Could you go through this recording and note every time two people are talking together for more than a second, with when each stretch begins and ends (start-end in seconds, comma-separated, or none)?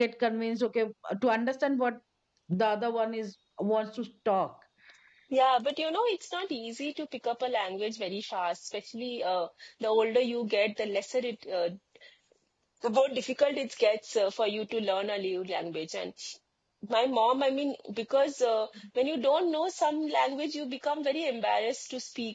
none